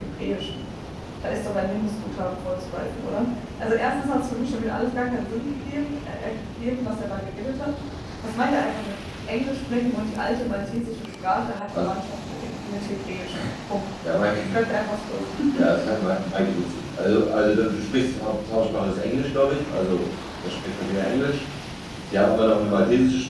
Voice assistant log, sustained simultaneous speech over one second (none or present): none